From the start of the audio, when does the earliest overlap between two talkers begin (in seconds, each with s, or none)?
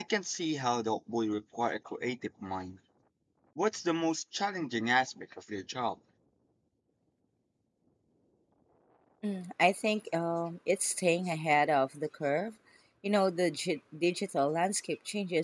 none